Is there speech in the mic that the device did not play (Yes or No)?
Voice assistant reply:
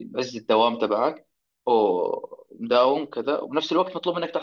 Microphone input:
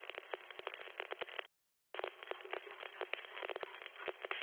No